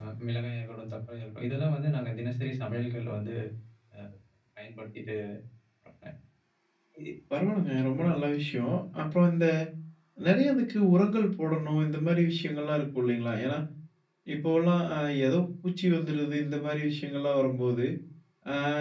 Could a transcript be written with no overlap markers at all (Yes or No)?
Yes